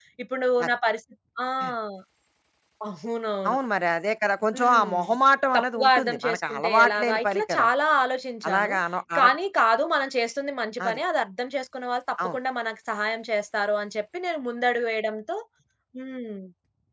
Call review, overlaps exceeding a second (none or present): present